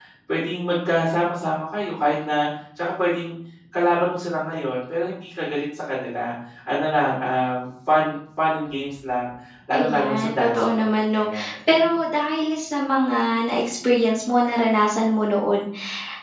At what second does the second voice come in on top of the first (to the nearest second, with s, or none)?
10 s